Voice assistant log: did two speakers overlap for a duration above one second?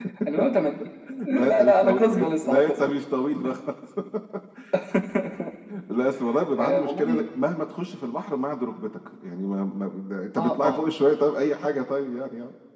Yes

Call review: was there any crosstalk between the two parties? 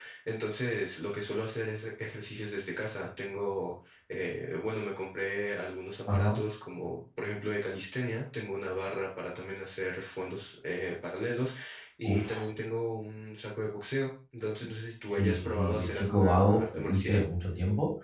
Yes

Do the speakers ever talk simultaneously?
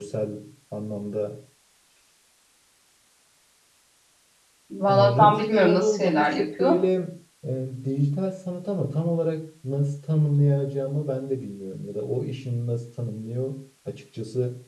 Yes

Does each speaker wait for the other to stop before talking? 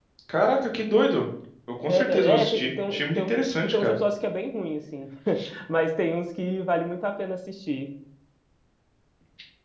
No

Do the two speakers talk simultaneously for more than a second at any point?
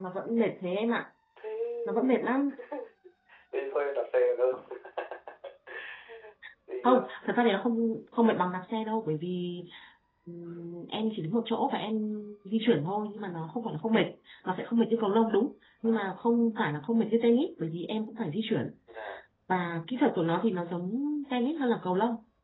No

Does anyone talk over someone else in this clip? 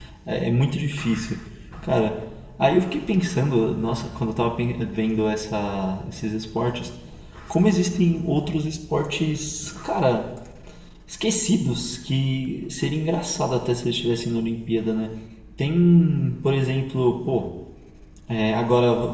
No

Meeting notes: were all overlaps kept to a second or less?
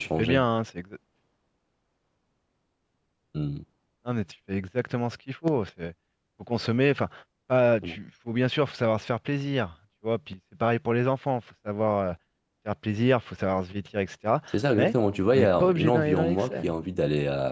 No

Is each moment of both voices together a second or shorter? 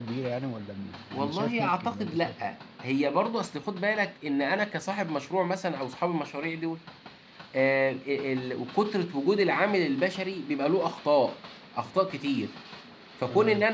No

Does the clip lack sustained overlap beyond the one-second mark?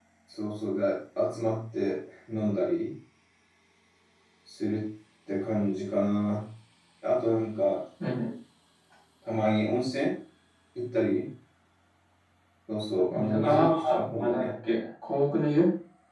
No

